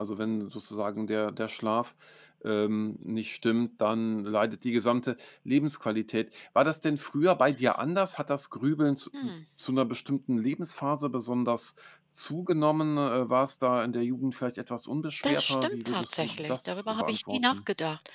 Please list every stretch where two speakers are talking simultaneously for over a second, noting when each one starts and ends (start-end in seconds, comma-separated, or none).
15.2-17.6